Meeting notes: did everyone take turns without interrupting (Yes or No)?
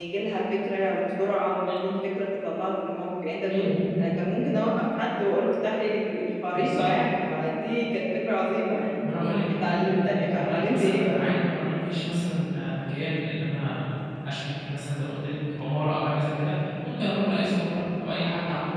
No